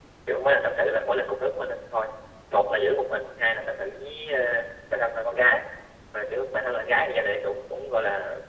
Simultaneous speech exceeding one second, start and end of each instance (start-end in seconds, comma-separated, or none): none